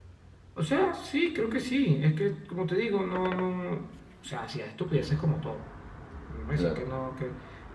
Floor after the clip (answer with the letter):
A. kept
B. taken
A